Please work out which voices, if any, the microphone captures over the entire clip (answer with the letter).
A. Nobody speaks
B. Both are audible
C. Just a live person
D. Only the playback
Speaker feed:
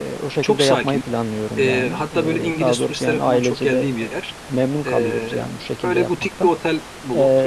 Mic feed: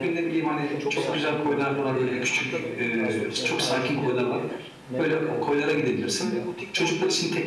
B